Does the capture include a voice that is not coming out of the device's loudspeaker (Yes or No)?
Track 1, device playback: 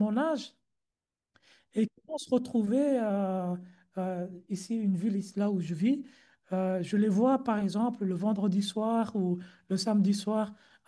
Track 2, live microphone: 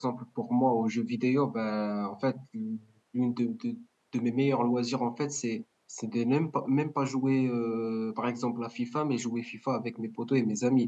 Yes